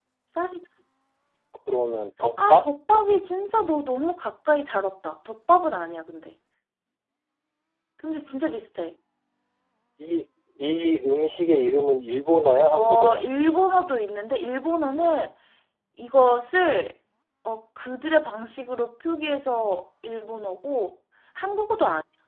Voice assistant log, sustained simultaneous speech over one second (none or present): none